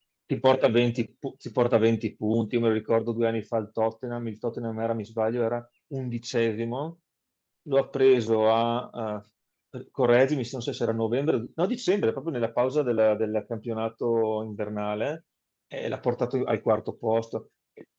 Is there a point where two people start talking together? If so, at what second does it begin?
none

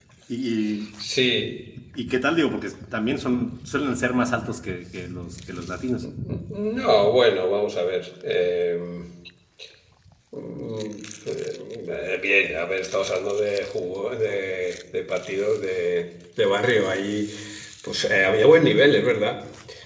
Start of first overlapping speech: none

